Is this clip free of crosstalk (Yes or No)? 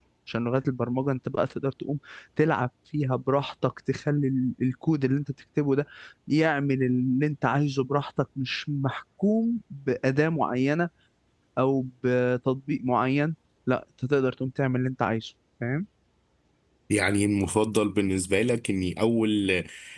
Yes